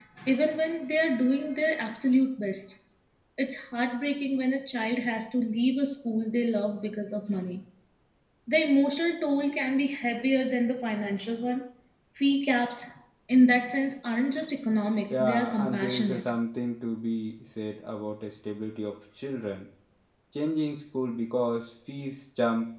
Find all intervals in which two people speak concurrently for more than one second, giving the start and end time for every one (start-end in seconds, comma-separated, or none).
15.1-16.3